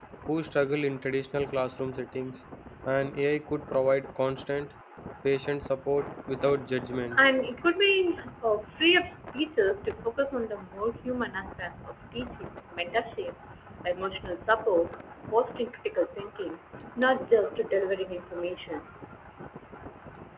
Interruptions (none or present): none